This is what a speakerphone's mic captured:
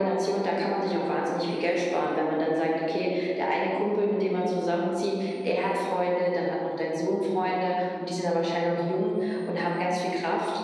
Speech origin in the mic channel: echo only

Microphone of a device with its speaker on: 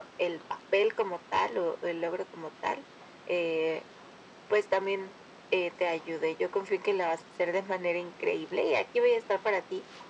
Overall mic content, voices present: echo only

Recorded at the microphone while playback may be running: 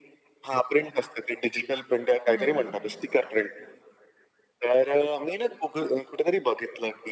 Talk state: both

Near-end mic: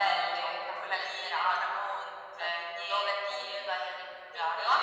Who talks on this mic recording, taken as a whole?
both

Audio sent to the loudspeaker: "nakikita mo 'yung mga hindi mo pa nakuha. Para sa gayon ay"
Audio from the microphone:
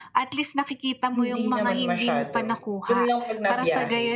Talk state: both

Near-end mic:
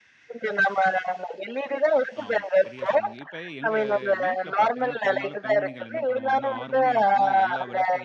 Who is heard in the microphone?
both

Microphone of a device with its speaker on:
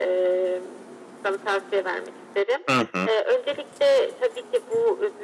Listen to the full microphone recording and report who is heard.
both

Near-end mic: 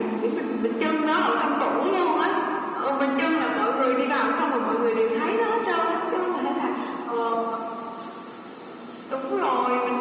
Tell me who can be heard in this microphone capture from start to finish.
echo only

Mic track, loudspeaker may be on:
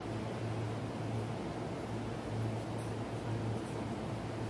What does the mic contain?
neither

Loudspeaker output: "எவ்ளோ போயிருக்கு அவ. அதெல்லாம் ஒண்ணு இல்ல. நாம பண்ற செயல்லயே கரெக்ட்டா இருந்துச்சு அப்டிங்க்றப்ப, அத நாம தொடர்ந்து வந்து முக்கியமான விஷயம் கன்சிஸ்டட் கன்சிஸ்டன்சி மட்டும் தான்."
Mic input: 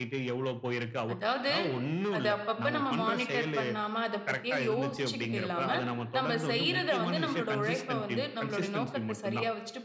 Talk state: both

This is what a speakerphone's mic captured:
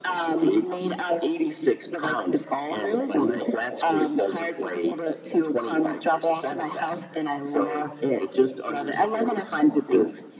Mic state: echo only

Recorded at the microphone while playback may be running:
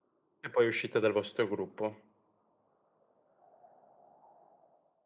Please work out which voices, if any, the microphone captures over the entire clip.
user only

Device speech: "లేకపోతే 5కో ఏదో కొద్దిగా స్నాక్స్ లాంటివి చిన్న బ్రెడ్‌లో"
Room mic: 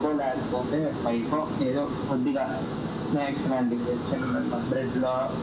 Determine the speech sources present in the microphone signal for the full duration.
echo only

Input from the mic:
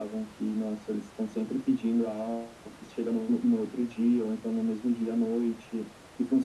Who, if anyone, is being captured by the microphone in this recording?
echo only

